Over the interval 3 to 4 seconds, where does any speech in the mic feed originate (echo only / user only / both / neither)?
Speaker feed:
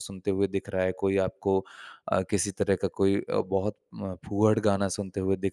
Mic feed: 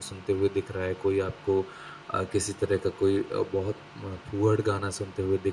echo only